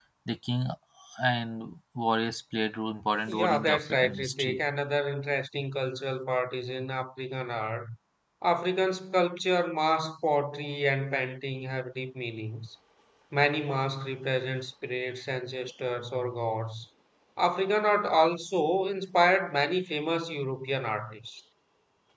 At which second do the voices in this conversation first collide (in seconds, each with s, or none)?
3.3 s